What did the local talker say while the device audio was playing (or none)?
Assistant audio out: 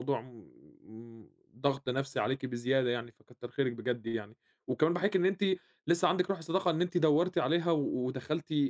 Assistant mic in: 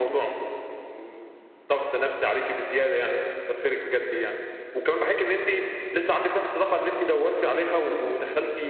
none